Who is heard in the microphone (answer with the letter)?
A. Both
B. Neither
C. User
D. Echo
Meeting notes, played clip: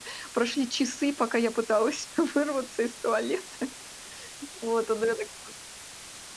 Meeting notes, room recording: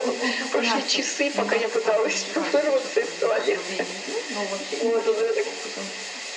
A